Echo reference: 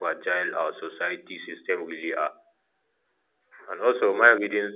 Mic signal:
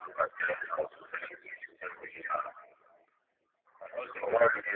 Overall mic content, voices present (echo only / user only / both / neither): echo only